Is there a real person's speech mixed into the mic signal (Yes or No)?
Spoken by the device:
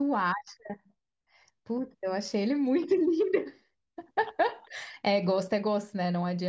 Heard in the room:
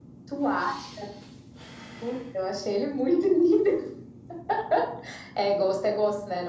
No